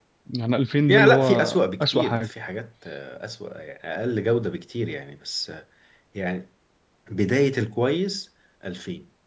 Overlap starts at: 0.9 s

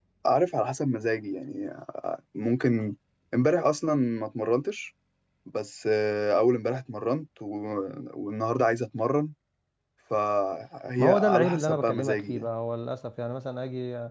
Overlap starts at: 11.0 s

